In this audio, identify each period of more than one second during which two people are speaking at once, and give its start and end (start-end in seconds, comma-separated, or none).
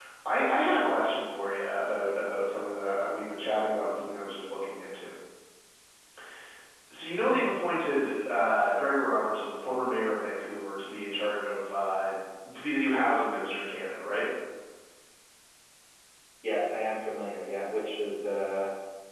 none